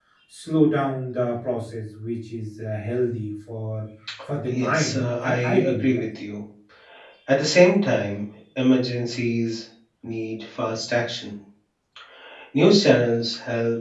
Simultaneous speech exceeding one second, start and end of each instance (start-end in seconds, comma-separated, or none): 4.4-6.0